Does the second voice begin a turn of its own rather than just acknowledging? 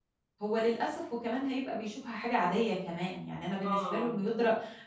No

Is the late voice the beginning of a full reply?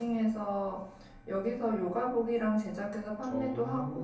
No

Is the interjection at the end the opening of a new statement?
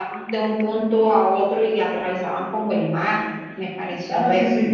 Yes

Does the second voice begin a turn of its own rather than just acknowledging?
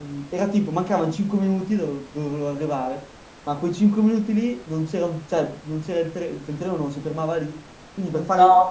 No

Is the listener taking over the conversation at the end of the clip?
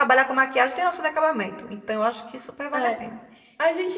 Yes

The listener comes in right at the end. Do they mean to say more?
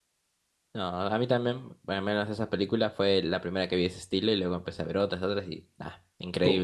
Yes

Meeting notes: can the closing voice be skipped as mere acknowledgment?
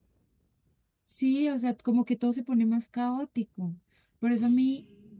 Yes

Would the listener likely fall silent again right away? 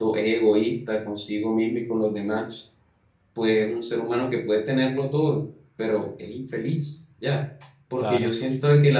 Yes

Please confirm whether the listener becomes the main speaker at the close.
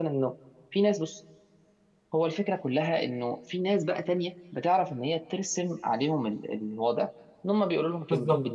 Yes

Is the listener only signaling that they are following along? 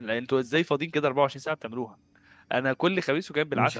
Yes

